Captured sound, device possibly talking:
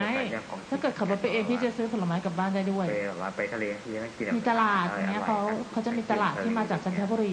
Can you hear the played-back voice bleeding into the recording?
Yes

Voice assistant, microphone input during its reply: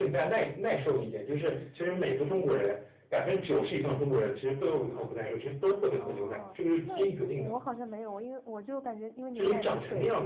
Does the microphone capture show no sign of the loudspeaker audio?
No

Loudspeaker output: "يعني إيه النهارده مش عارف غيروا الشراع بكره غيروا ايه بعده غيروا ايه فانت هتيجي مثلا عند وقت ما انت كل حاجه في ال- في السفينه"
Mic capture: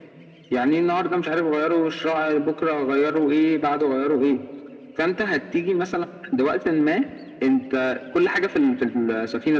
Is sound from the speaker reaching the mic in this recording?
Yes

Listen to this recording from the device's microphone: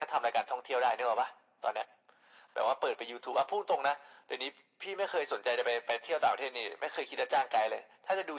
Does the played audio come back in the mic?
Yes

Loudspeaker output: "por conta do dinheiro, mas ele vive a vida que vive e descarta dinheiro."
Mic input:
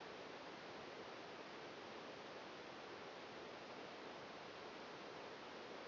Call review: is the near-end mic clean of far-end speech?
Yes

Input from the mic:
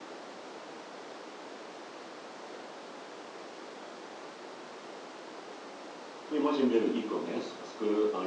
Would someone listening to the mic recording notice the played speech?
No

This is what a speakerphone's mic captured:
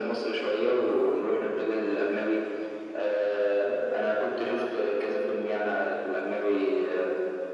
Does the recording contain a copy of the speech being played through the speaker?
Yes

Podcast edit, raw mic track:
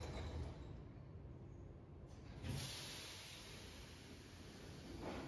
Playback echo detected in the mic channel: No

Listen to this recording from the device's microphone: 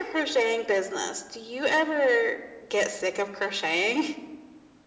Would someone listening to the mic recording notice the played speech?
Yes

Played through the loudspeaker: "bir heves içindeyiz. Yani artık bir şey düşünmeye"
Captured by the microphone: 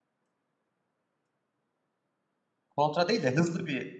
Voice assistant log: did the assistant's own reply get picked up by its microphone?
No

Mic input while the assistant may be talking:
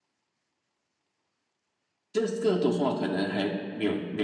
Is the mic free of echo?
No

